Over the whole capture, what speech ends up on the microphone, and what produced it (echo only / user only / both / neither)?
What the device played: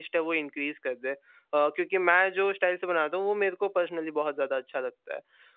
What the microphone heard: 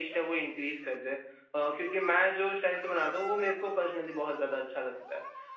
echo only